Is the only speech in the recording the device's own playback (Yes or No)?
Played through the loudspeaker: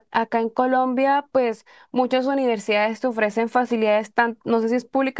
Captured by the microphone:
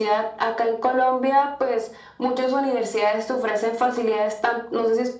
Yes